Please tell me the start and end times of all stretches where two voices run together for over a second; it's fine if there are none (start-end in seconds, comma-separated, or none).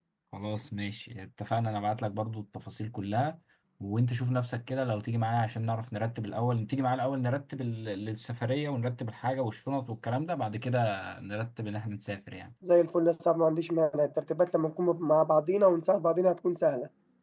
none